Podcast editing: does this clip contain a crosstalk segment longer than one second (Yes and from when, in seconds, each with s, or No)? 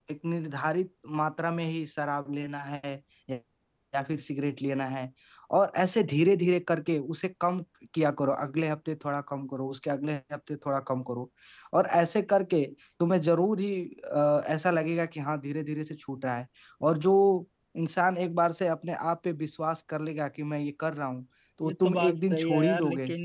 Yes, from 21.6 s